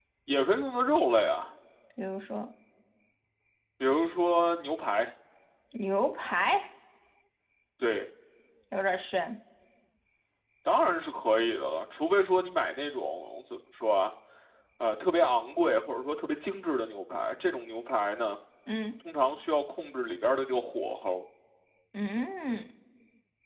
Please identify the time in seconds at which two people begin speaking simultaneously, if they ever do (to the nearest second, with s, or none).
none